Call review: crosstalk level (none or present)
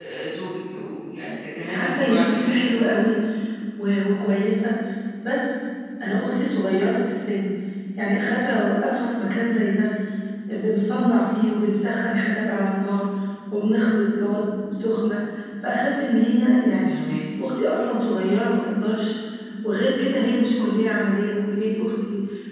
present